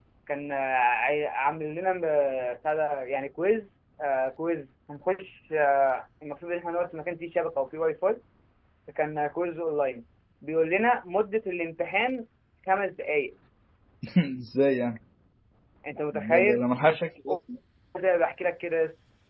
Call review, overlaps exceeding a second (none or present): none